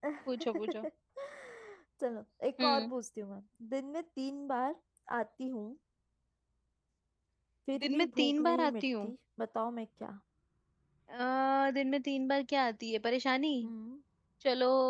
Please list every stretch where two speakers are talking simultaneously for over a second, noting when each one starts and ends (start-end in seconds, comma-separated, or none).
7.8-9.1